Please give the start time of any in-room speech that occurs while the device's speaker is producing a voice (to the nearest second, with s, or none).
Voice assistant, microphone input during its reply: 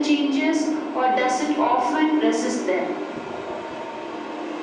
none